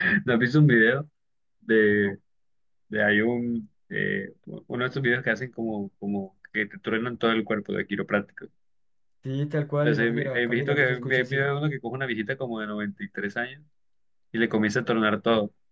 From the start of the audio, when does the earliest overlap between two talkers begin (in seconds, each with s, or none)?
9.8 s